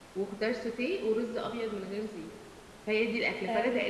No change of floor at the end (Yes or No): No